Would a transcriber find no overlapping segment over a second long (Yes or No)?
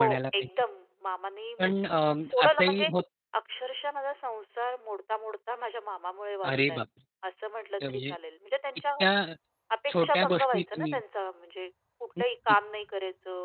No